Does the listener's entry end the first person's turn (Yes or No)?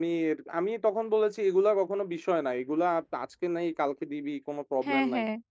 No